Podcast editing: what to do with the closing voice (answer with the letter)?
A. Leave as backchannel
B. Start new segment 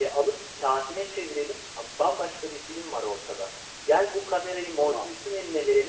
A